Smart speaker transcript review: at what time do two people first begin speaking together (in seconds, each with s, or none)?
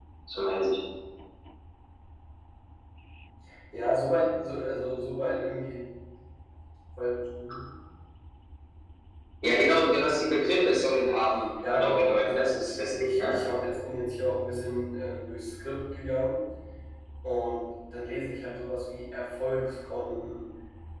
11.6 s